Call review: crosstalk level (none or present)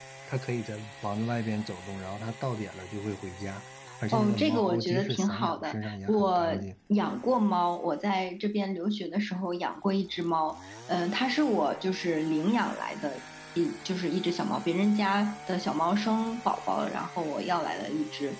present